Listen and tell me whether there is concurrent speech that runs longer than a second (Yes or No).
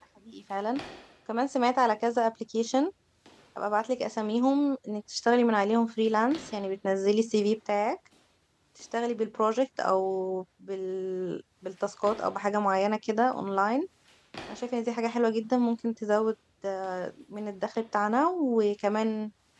No